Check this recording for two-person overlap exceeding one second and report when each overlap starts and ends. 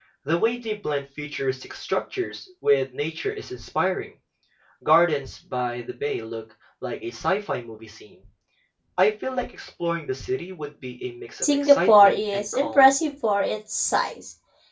11.4-12.8

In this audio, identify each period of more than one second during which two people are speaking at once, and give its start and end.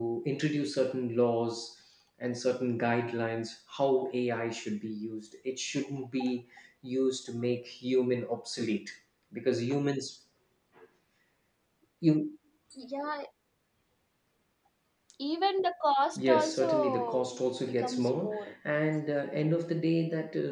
16.1-18.5

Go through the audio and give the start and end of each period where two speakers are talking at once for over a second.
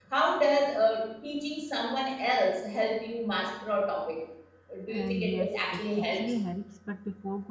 4.9-6.2

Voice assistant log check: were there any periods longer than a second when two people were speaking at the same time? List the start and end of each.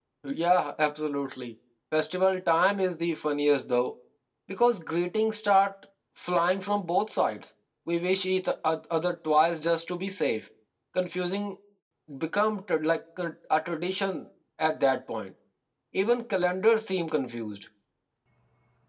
none

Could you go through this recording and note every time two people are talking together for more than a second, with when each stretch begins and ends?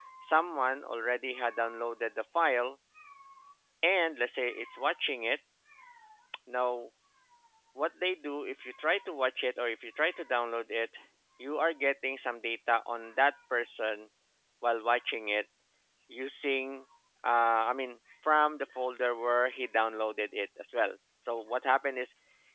none

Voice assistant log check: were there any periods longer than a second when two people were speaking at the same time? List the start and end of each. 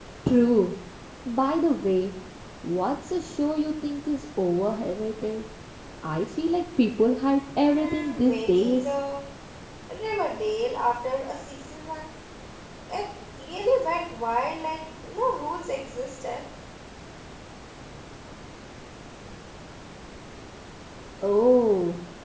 7.6-8.9

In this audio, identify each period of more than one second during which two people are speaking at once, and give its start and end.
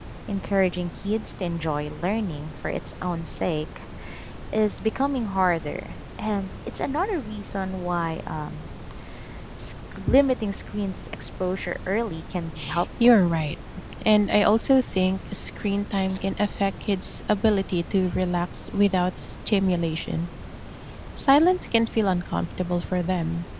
none

